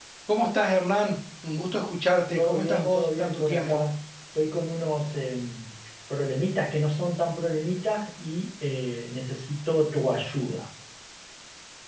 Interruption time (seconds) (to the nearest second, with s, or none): 2 s